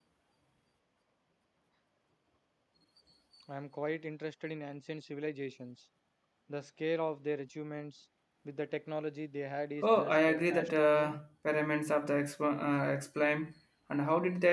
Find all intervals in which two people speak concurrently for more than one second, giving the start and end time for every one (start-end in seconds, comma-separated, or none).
9.8-11.2